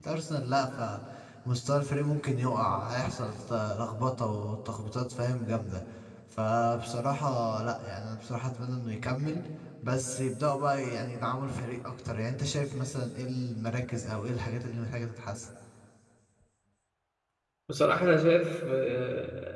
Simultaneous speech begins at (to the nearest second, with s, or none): none